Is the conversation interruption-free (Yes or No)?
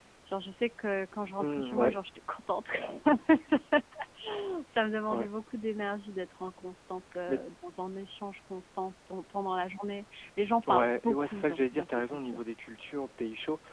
No